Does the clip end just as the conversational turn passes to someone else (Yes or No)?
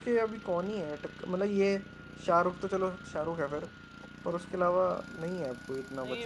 Yes